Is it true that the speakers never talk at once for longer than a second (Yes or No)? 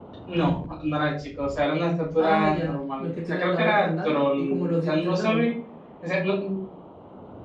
No